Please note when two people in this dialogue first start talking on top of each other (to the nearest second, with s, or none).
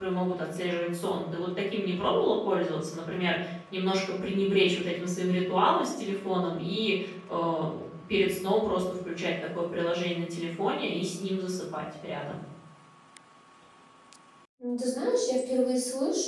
none